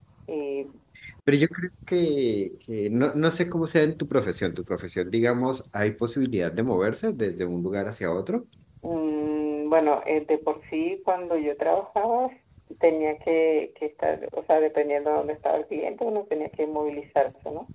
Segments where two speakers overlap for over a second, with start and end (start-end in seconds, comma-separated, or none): none